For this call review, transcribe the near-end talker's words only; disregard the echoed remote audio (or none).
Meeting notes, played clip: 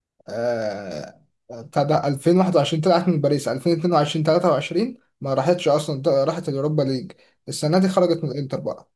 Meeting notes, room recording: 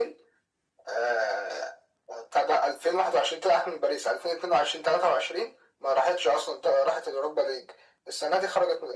none